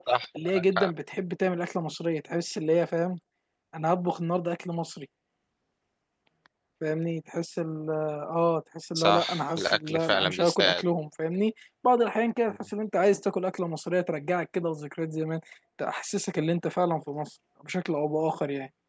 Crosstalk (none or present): present